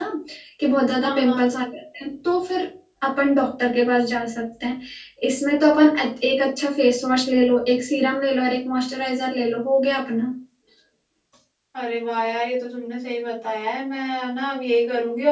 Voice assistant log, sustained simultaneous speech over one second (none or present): none